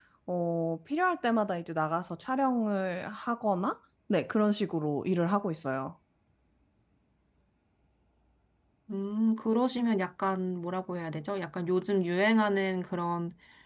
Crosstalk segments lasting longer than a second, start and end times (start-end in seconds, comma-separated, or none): none